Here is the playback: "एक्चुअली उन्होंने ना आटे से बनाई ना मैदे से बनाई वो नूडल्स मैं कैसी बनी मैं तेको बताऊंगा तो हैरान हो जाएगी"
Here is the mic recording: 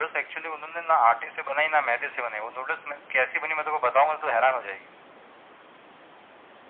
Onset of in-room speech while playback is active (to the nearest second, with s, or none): none